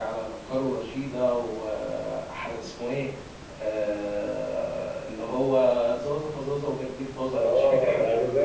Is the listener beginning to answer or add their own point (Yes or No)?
Yes